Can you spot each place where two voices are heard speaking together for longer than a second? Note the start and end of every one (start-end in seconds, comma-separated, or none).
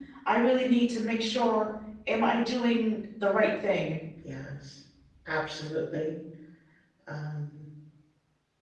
none